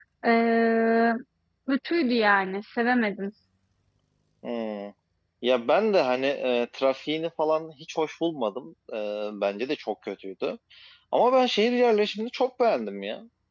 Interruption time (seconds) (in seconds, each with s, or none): none